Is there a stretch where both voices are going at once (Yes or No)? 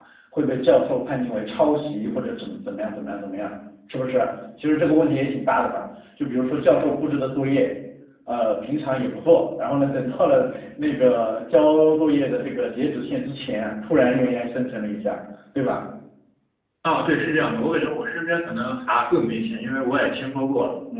No